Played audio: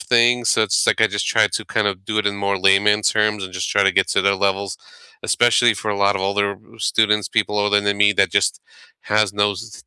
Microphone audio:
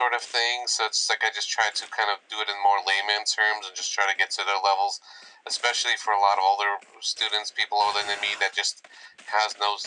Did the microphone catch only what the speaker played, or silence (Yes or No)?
Yes